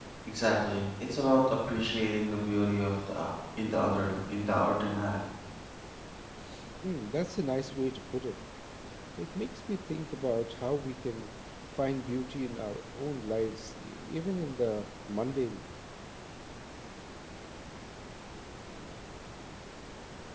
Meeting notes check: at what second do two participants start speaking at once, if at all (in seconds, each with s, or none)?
none